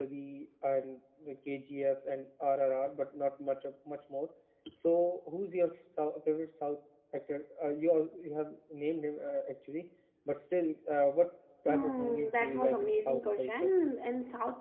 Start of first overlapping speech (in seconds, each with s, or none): 11.7 s